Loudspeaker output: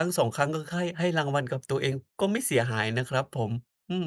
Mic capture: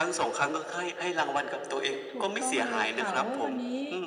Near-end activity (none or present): present